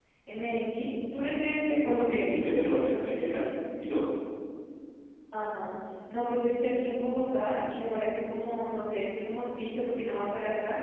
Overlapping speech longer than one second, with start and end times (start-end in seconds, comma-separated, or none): none